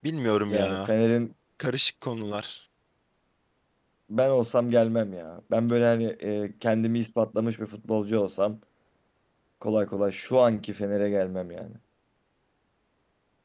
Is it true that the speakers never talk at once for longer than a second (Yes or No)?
Yes